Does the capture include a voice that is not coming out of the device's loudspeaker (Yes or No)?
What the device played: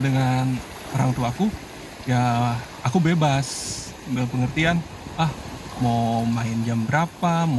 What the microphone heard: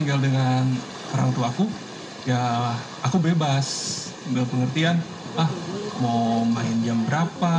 Yes